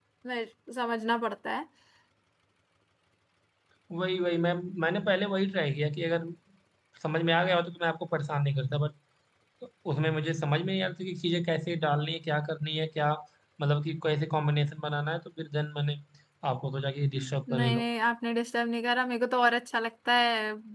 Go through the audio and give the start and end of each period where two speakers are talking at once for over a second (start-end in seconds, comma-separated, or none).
none